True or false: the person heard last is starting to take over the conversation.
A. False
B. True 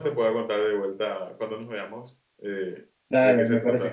B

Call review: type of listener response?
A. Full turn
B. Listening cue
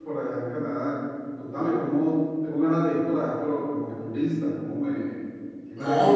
A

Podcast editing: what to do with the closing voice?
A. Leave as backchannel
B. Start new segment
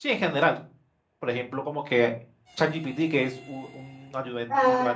B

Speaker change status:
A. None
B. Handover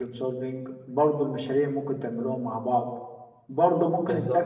A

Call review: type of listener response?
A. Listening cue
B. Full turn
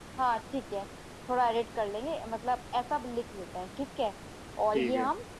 A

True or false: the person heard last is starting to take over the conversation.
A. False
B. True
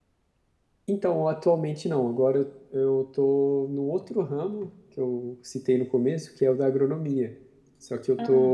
A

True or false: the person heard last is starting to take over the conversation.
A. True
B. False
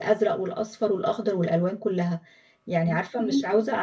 B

